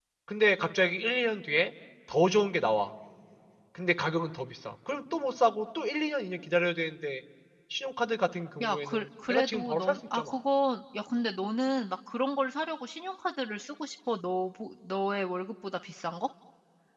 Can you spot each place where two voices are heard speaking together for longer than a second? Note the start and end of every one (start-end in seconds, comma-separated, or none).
8.6-10.3